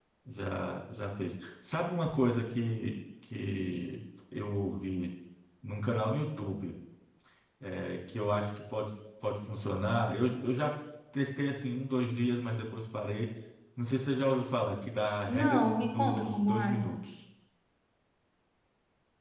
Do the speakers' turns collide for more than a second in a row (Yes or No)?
Yes